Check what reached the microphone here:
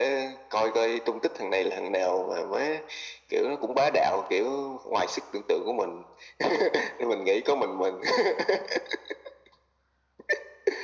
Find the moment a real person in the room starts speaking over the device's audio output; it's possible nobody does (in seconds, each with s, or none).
none